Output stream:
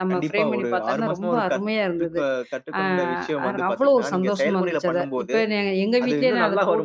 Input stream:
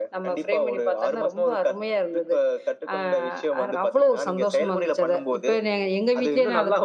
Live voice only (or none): none